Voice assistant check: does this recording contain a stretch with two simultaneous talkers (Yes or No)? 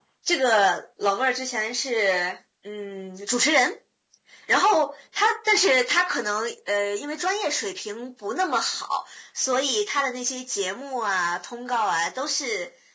No